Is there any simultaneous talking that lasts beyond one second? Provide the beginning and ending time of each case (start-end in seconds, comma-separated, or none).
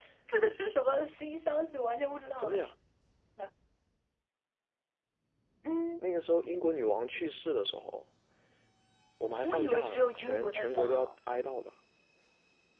9.4-11.1